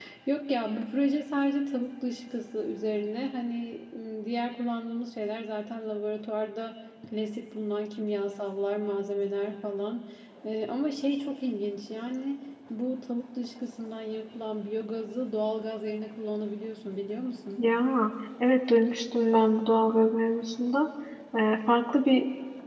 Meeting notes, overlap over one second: none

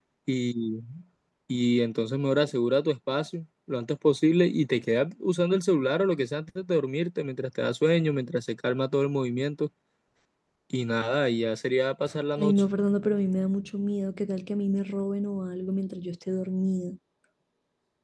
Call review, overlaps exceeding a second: none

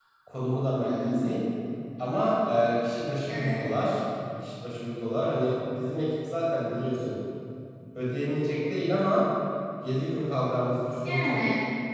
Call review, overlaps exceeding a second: none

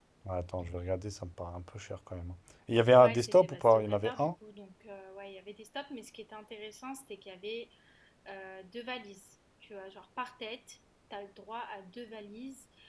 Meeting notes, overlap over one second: present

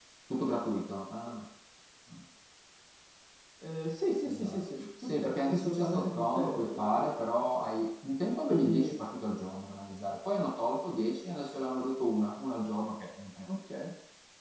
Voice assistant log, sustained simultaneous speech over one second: present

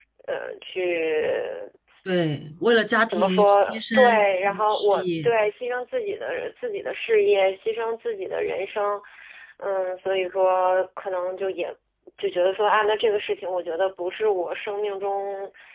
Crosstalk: present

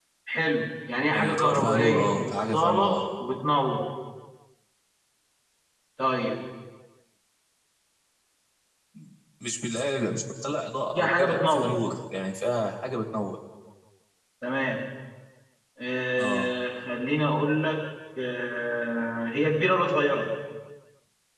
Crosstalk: present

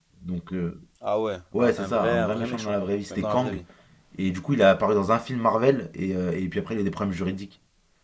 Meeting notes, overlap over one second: present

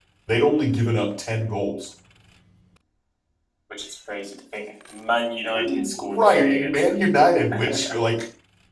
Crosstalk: present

